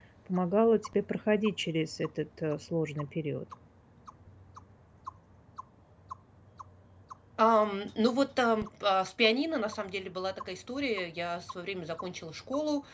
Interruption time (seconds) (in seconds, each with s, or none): none